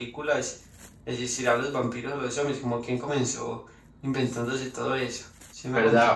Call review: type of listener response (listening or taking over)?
taking over